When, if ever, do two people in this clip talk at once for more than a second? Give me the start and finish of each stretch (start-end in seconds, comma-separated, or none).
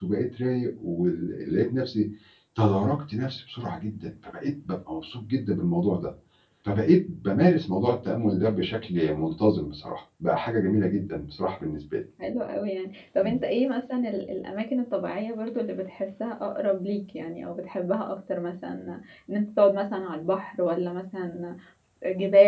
none